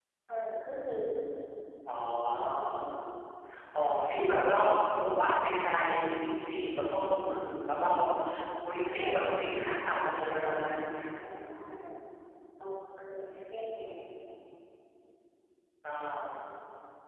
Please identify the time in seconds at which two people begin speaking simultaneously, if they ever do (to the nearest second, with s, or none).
9 s